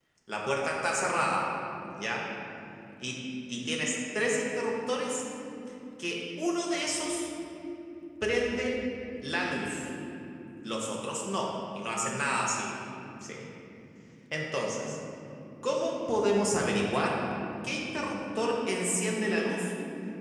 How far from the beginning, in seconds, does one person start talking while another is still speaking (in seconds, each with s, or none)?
none